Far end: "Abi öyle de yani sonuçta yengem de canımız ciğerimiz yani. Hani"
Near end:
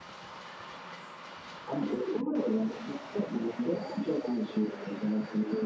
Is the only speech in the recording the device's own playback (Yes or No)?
Yes